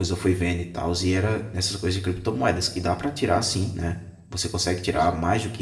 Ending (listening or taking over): listening